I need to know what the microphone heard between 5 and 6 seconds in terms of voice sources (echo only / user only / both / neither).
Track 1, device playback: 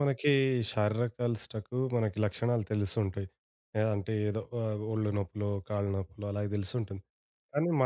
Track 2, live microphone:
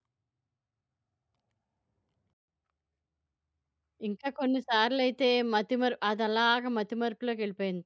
user only